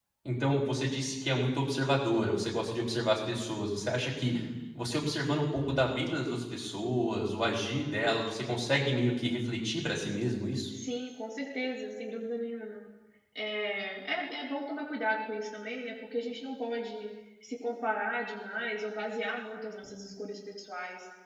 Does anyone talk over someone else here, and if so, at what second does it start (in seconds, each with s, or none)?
none